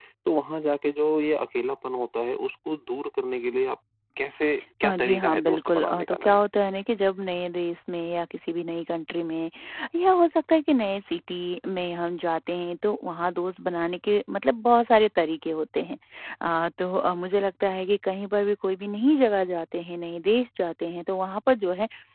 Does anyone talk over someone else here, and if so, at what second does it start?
4.8 s

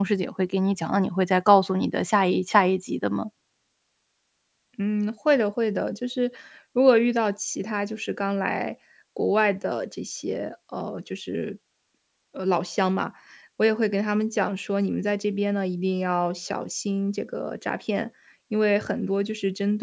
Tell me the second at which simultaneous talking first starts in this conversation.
none

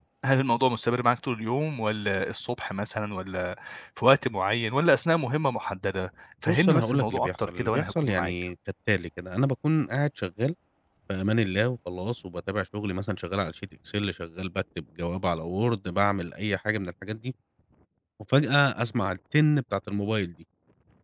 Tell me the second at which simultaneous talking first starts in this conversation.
6.5 s

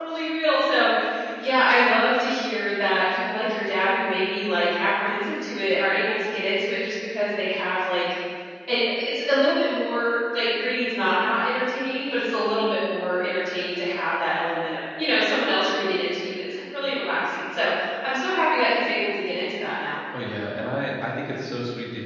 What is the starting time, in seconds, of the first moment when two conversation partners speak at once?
none

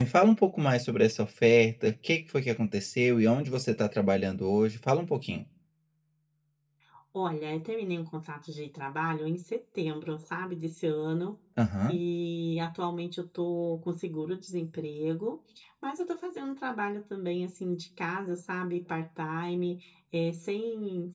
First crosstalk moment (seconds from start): none

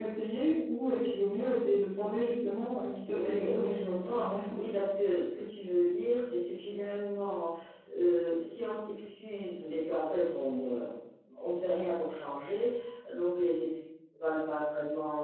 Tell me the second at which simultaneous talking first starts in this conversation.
3.1 s

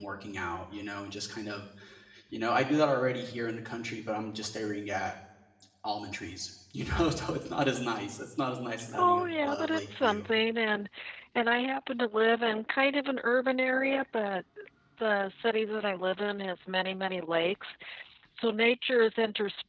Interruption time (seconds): 9.0 s

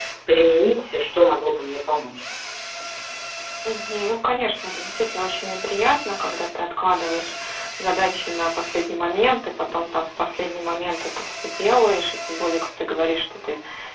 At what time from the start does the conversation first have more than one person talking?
none

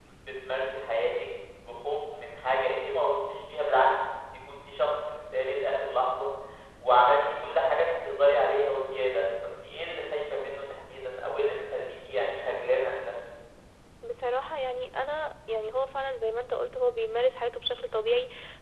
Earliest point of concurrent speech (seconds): none

